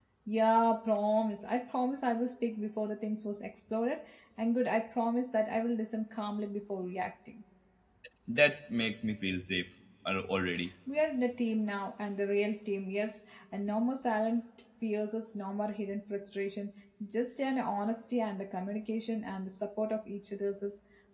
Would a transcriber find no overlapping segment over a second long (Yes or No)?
Yes